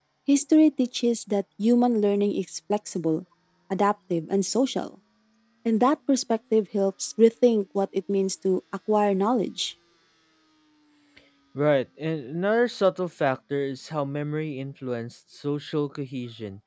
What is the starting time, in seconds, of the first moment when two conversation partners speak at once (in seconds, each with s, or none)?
none